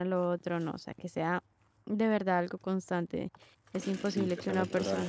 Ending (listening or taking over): taking over